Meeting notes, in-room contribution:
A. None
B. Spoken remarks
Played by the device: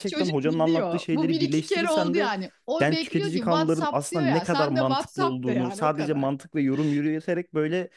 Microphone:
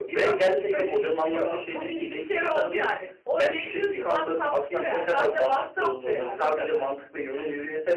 A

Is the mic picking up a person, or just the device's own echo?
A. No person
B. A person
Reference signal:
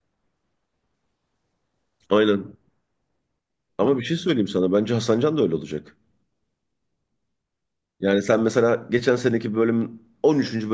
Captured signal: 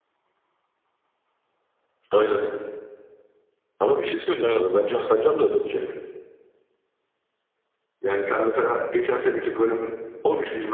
B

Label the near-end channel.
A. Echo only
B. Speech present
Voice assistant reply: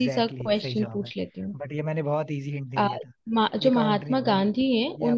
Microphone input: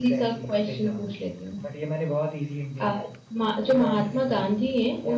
A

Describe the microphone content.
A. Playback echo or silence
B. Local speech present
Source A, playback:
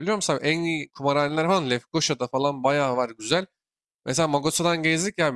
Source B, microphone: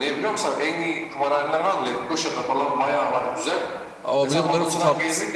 B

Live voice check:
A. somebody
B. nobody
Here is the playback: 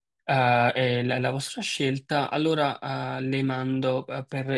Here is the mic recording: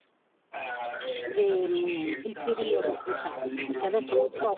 A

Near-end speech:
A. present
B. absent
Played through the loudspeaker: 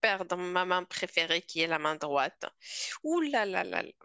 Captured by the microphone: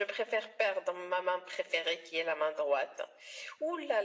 B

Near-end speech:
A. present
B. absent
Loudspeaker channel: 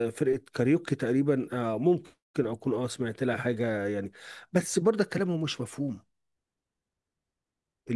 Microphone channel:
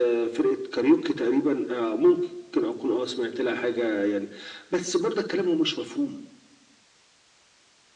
B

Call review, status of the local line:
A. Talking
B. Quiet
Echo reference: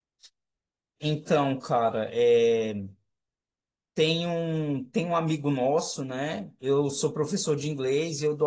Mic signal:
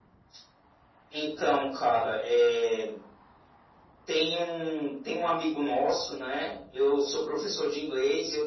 B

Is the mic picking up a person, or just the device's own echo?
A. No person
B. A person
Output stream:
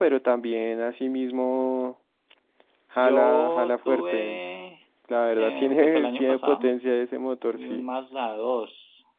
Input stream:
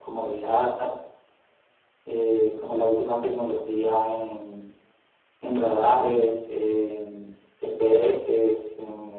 B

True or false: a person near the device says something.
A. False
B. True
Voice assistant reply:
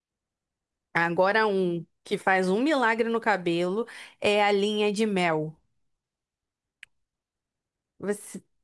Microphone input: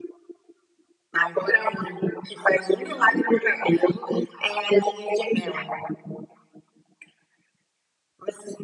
A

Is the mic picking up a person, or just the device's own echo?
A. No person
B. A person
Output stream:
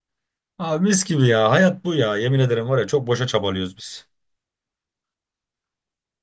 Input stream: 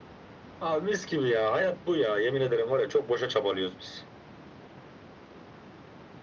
A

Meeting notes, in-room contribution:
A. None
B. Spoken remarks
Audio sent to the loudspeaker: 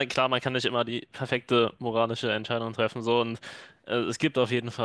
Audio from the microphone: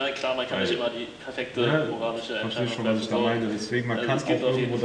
B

